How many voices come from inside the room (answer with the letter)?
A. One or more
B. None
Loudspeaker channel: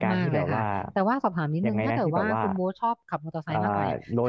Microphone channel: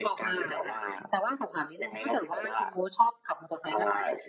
B